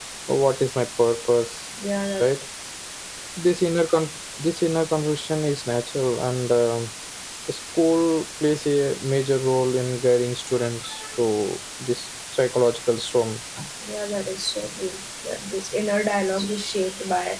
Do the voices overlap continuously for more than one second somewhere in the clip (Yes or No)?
No